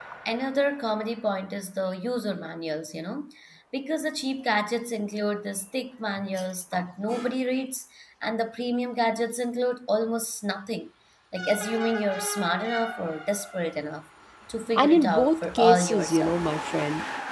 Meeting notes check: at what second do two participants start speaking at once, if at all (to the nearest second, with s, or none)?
15 s